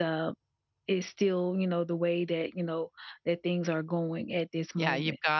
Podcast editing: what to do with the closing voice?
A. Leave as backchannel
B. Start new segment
B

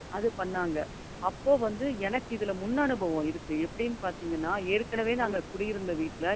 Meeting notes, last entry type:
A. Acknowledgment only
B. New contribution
A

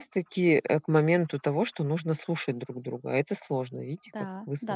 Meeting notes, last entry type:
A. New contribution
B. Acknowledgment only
A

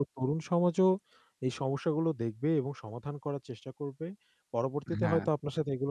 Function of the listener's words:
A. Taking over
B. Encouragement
B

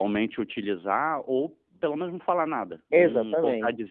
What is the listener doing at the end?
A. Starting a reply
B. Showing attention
A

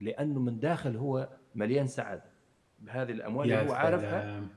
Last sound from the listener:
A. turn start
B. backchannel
B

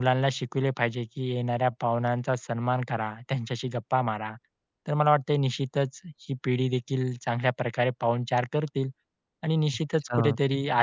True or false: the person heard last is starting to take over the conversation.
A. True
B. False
B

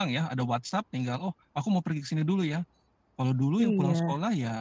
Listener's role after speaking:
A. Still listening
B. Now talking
A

